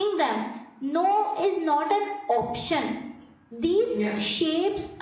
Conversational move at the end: listening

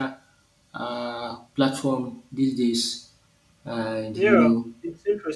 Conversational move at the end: taking over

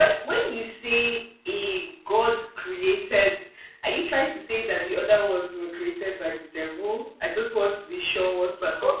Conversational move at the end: taking over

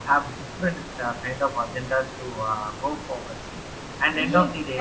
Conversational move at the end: taking over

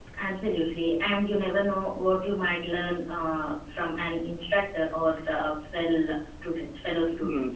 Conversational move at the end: taking over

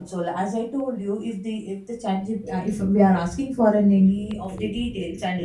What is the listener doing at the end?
listening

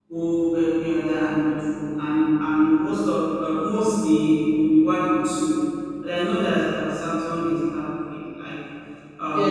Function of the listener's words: taking over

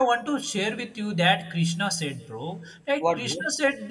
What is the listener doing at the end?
listening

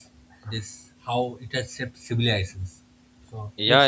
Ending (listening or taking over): taking over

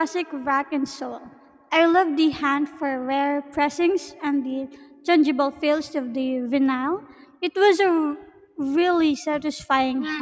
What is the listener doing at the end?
taking over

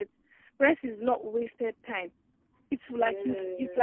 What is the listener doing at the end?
listening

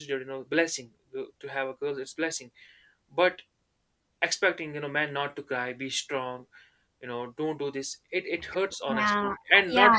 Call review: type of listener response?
taking over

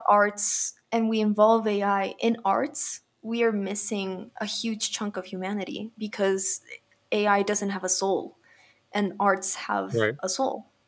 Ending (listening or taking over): listening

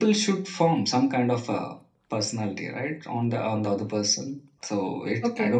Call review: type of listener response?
taking over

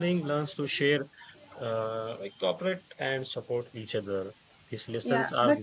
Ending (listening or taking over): taking over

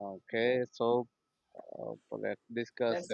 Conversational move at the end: taking over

